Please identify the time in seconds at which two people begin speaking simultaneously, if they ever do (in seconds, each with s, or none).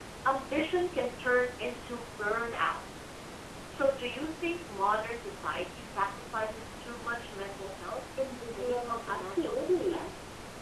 8.5 s